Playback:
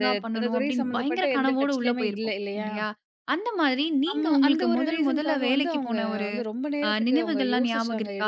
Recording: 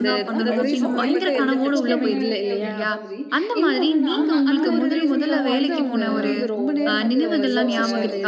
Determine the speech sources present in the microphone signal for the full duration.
both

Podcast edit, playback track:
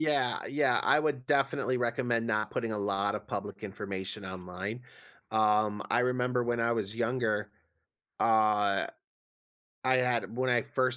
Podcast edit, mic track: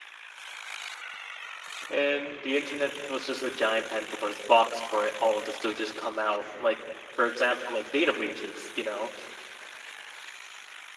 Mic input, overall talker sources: user only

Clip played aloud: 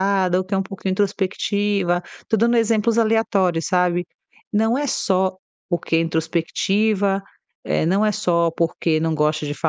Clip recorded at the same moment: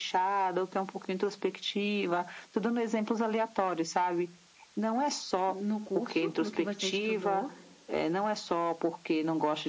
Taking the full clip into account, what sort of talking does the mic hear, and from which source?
both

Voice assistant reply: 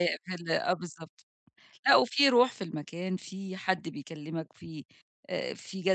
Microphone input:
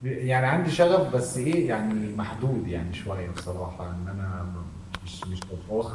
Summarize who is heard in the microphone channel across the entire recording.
user only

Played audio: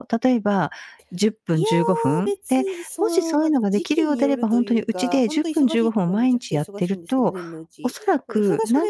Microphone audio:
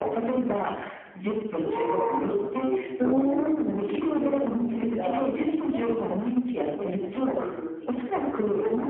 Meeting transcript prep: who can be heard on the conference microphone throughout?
both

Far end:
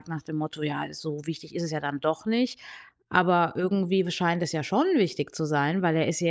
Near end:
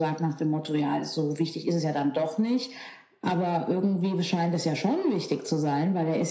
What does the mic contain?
echo only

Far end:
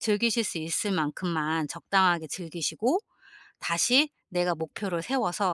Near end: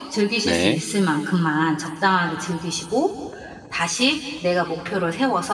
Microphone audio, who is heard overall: both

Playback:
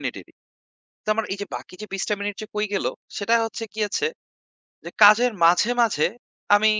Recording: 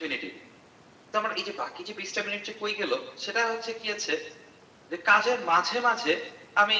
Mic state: echo only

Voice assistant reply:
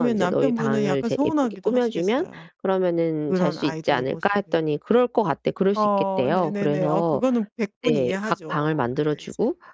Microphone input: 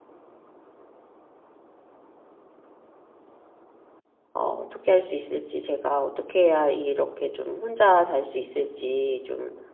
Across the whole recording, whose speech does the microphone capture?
user only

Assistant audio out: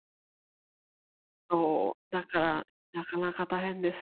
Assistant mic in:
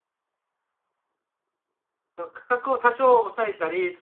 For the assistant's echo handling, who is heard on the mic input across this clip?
user only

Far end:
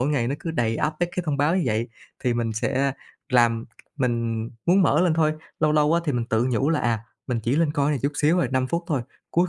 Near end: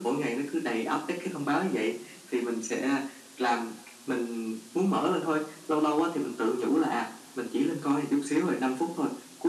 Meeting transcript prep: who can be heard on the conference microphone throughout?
echo only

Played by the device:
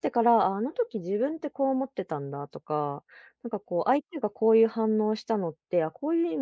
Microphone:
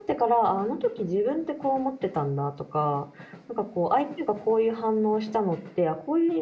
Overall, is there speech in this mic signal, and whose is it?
echo only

